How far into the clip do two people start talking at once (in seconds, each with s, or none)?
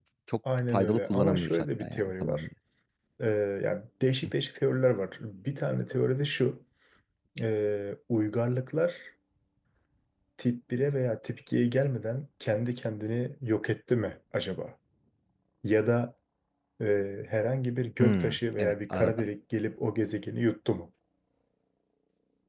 0.7 s